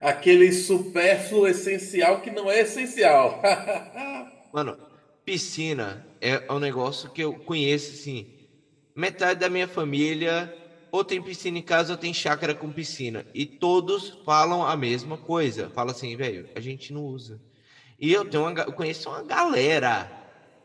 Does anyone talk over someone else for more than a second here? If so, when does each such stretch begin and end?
none

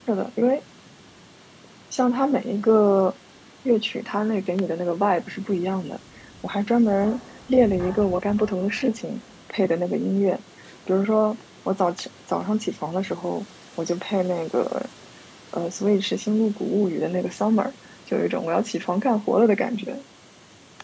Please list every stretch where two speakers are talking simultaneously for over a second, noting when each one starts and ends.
none

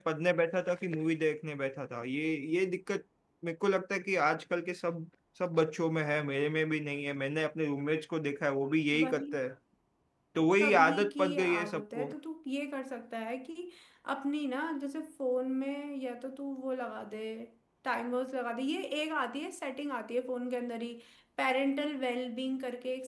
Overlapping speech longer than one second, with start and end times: 10.6-12.1

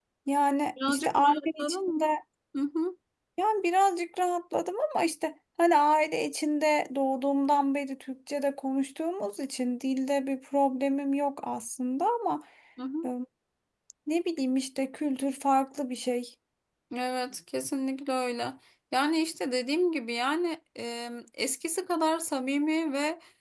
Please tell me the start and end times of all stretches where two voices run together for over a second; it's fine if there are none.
0.9-2.1

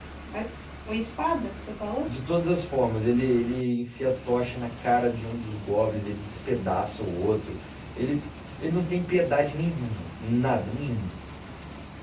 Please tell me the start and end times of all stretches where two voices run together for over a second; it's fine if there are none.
none

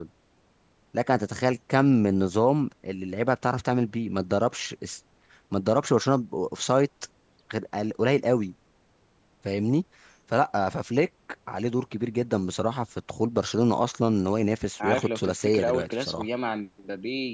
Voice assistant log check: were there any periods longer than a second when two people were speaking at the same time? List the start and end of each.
14.8-16.3

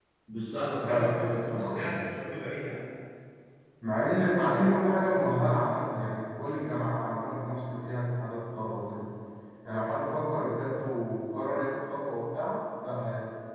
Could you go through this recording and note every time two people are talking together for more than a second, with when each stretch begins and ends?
0.8-2.0

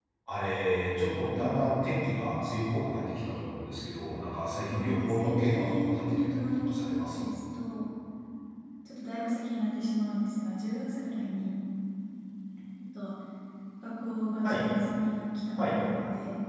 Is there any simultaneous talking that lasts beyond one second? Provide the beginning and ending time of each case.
4.7-7.2

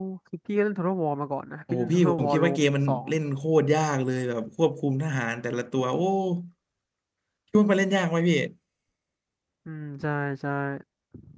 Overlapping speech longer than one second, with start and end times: 1.7-3.0

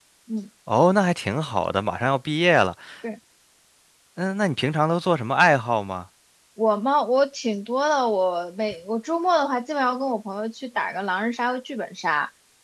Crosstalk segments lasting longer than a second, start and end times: none

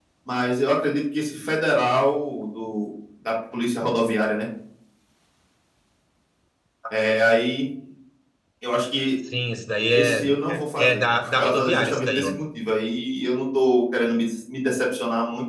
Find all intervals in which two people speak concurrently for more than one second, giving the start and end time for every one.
10.8-12.3

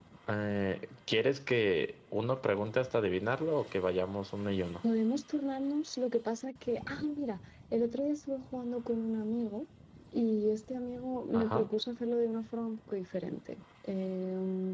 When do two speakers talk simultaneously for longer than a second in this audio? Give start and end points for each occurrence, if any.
none

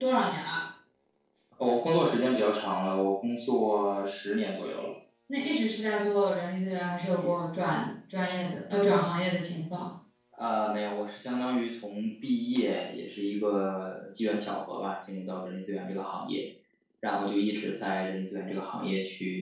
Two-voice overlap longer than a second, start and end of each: none

